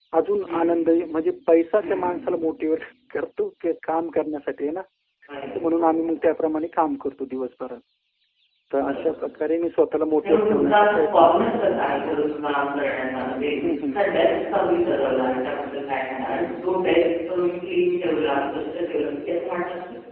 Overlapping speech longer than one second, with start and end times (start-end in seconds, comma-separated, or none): 10.2-11.4